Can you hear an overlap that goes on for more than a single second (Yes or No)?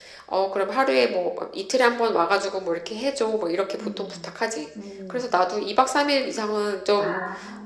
No